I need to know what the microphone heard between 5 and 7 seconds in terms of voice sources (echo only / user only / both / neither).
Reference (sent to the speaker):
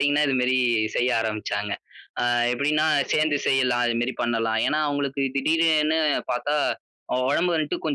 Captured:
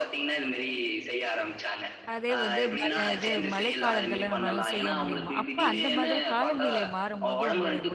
both